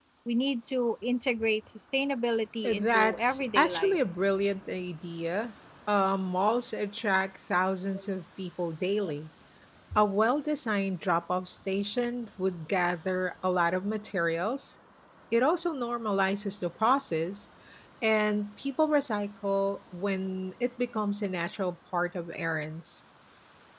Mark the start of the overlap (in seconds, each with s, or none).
2.6 s